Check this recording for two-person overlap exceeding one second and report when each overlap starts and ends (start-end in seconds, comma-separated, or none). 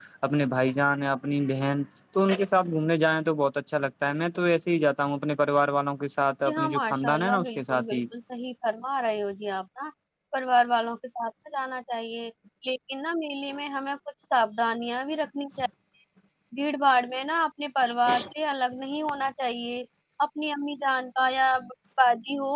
6.5-8.0